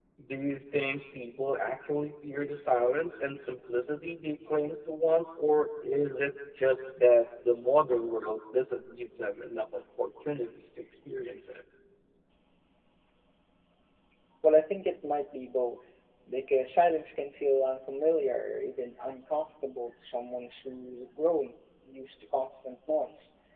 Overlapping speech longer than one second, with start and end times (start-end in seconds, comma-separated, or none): none